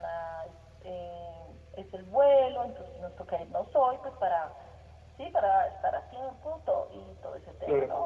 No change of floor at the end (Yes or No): Yes